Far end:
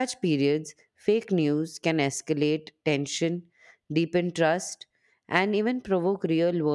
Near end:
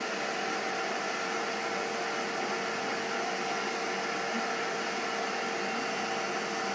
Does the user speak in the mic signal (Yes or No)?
No